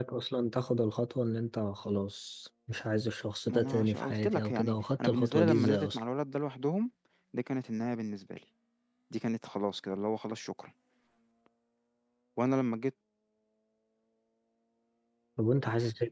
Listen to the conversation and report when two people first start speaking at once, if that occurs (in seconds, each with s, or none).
3.5 s